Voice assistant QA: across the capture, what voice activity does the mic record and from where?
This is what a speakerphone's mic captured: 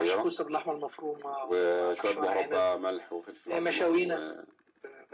echo only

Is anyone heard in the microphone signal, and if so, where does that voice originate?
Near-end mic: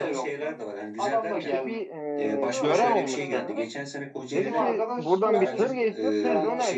both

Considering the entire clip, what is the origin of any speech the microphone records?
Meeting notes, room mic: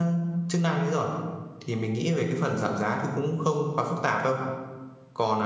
user only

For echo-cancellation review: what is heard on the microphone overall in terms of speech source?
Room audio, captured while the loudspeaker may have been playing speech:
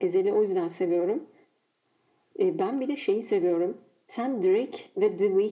echo only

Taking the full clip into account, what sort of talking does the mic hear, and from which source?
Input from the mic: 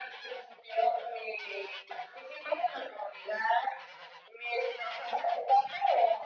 echo only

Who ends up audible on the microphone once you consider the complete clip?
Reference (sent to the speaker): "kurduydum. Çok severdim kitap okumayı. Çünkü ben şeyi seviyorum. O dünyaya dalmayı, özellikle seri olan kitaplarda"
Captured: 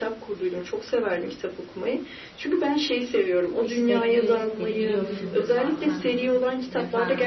both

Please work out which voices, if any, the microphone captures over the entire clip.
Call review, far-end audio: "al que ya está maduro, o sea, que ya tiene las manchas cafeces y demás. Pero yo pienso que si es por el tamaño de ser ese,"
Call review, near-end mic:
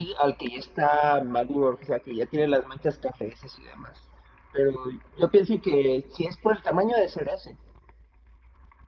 echo only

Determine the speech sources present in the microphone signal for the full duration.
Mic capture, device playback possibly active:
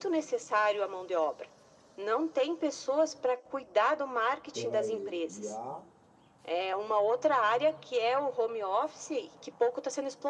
both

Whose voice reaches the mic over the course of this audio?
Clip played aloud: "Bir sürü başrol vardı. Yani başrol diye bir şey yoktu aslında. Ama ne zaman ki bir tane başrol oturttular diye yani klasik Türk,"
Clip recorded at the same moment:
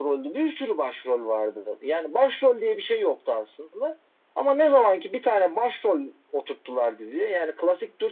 echo only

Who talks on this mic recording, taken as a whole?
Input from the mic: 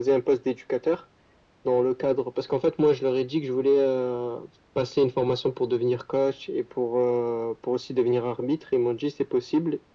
echo only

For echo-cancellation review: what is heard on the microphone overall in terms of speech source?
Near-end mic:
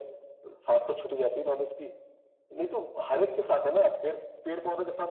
echo only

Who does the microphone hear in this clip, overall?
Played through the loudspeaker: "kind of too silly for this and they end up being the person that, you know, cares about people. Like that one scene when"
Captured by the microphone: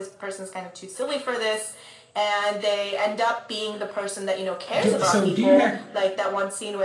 both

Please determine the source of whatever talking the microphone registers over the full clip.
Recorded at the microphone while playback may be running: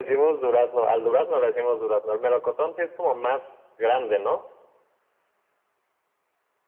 echo only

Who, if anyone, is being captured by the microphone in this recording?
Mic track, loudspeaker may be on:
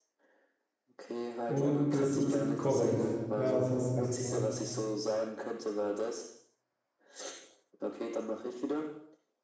both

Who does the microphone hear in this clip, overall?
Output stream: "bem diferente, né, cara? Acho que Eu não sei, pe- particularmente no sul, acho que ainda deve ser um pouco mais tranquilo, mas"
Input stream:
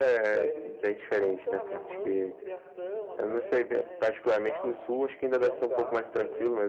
both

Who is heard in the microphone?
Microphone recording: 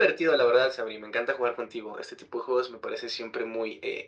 echo only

